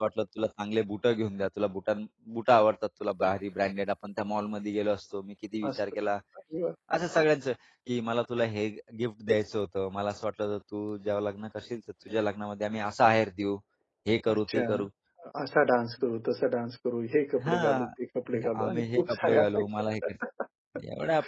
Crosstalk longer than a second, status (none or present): present